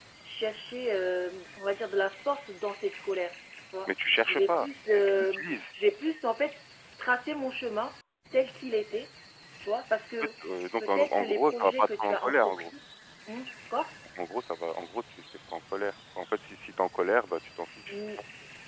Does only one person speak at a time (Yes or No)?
No